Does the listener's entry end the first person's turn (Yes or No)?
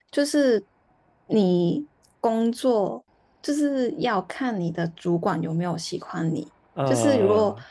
No